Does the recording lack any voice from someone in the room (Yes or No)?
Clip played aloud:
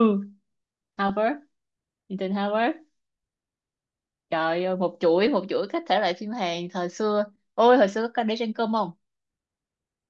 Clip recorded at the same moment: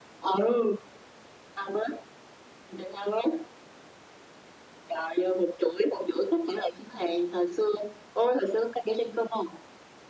Yes